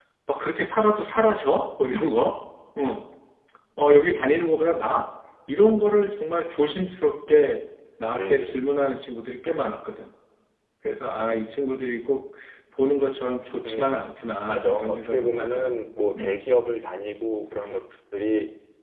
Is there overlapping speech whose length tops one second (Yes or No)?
Yes